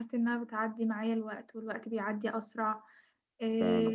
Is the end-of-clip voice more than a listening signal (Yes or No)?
No